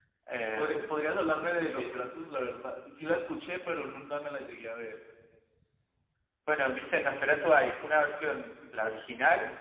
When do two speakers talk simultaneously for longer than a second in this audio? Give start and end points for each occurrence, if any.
none

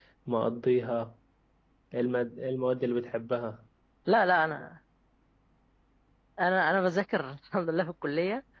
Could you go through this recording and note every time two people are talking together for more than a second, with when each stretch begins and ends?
none

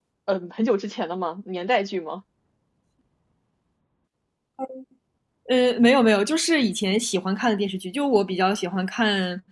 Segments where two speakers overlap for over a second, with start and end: none

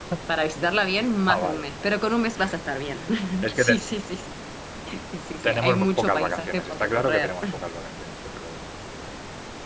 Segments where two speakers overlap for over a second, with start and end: 5.4-7.3

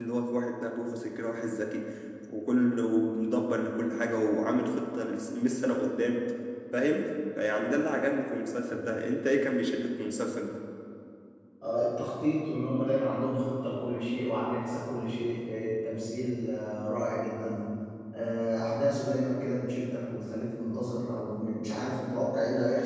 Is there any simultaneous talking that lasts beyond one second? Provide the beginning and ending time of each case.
none

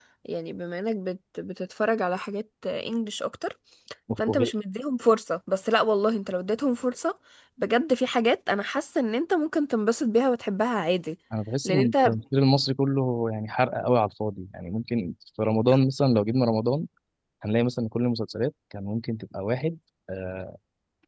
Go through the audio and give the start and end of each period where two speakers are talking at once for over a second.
none

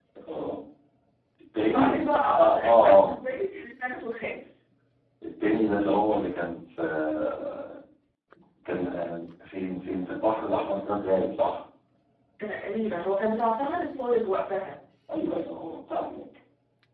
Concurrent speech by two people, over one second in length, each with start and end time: 1.7-3.2

